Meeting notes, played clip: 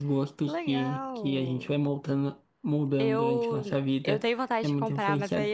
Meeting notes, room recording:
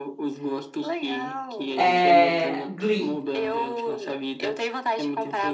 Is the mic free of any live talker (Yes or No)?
No